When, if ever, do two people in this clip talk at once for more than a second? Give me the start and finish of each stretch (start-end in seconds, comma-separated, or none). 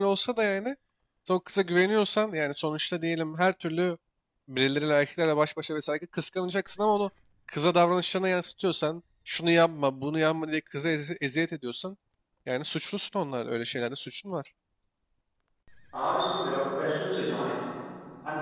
none